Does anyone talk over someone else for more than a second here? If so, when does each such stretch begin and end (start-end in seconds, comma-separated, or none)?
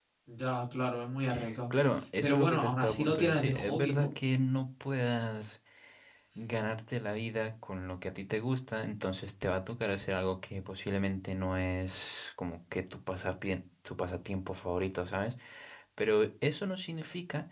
2.2-4.1